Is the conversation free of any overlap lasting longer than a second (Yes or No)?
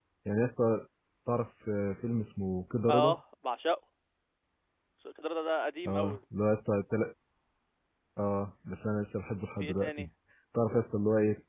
Yes